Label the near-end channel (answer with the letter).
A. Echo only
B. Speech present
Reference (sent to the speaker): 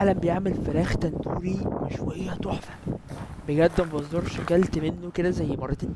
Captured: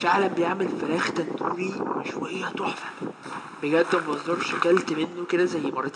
A